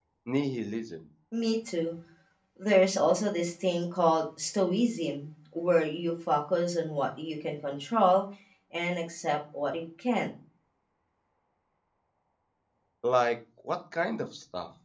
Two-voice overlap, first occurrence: none

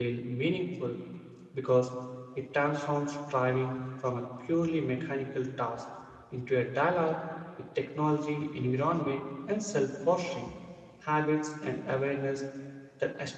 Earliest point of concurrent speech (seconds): none

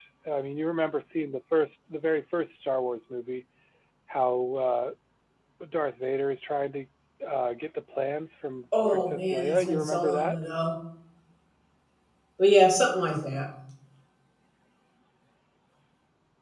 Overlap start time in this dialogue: 9 s

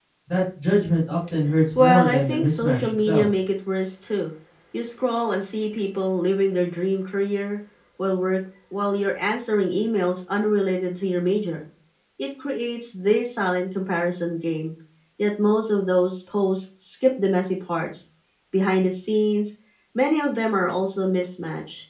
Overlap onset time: 2 s

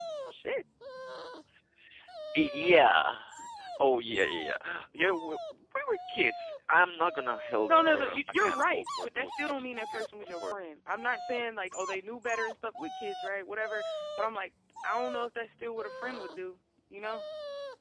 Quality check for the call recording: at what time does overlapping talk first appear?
8 s

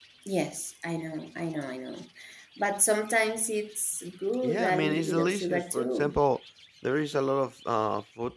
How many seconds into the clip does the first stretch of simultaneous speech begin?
4 s

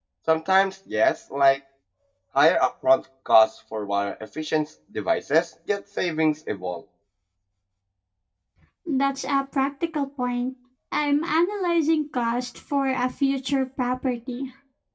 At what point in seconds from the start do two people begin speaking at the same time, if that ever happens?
none

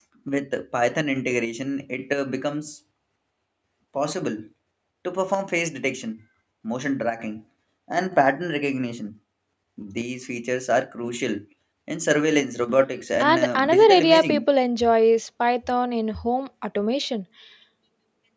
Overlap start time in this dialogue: 13 s

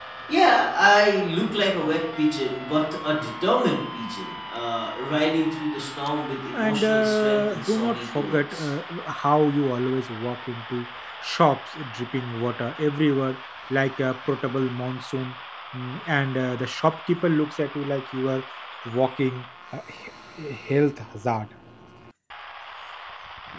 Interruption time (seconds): 7 s

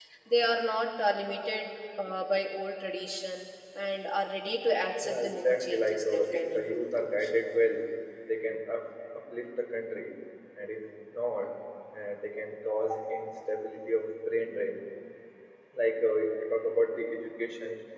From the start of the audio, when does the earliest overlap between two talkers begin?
5 s

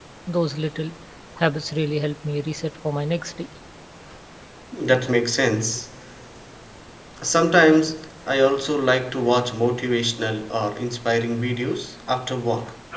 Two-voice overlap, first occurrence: none

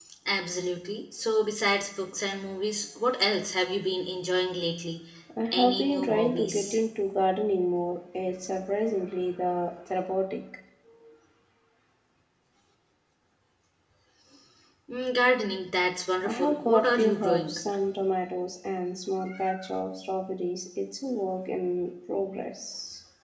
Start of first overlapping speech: 6 s

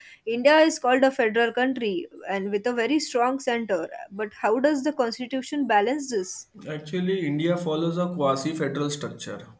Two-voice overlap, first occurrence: none

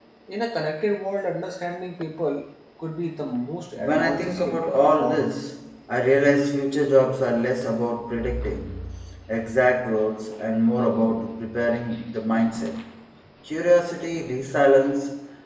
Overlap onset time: 4 s

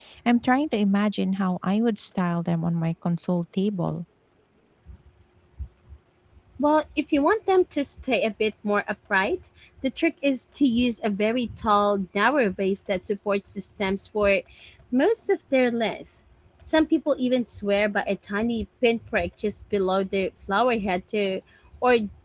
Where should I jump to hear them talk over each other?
none

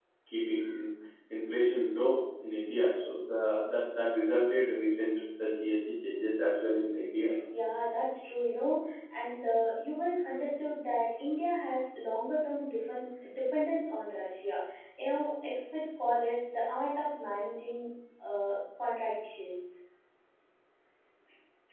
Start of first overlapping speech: none

